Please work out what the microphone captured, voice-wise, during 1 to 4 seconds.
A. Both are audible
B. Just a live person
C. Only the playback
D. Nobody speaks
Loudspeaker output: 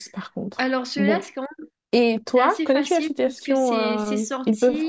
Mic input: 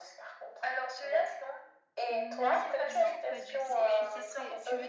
A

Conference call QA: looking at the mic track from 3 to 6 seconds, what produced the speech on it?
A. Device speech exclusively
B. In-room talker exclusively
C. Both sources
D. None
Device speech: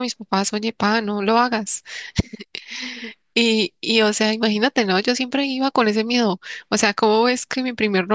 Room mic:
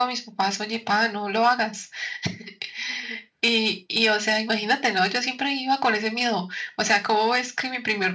A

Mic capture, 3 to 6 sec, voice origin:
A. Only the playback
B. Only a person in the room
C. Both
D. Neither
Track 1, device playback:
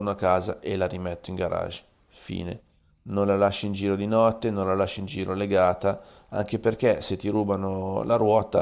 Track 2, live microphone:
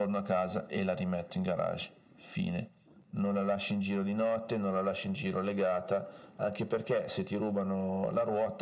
A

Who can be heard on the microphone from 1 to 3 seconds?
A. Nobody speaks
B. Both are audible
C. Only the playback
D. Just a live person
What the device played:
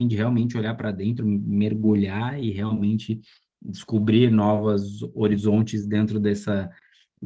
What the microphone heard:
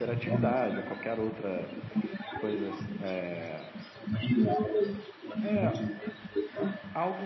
B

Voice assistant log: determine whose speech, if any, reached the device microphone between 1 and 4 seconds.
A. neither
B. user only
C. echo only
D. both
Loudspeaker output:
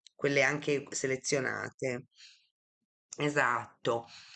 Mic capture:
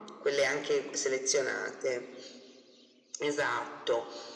C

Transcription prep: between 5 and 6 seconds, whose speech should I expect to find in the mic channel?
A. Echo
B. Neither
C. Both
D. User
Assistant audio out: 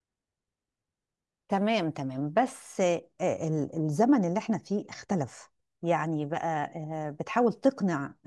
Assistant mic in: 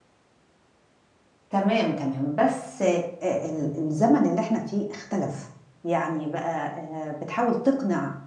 A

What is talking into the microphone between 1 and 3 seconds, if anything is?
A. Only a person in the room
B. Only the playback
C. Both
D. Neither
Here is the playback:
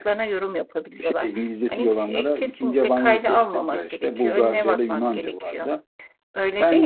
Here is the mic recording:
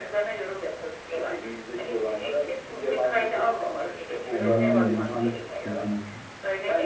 B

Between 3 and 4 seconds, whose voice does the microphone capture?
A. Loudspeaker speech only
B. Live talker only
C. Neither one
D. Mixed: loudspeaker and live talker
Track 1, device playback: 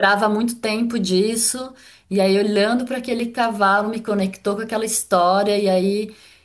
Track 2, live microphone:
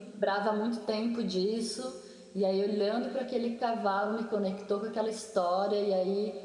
A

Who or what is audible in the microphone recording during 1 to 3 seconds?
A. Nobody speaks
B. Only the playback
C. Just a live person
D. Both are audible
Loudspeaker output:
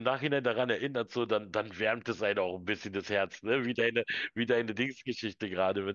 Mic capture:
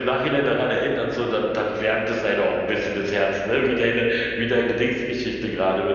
B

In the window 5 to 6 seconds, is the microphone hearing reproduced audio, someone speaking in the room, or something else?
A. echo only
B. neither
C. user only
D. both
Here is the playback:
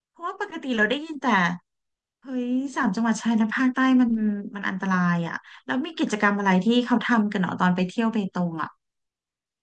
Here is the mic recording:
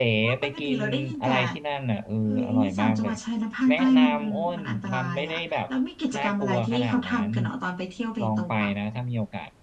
D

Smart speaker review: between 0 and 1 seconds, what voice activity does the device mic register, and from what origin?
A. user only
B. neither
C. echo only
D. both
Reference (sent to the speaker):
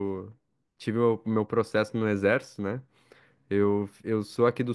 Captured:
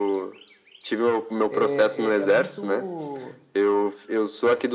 C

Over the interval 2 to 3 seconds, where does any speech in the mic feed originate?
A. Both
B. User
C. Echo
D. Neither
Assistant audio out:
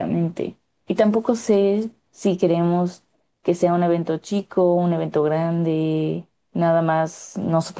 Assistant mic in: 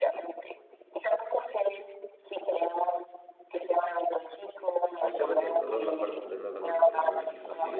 C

